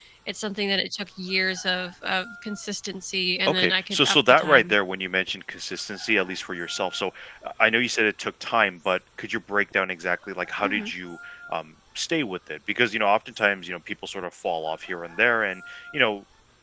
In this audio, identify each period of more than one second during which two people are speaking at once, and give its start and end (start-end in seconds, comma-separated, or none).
3.5-4.7